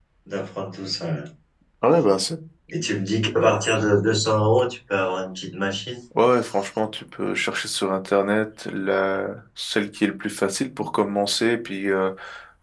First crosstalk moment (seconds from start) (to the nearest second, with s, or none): none